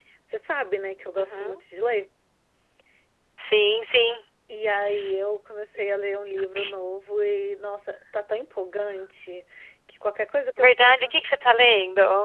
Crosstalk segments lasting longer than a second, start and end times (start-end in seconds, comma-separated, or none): none